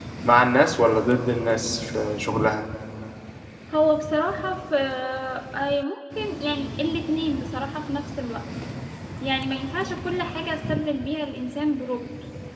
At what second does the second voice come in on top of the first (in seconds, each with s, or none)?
none